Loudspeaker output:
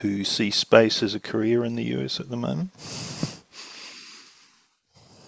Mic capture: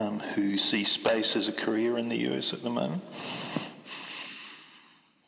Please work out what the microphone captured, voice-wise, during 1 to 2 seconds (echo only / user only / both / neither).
echo only